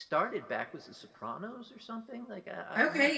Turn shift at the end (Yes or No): Yes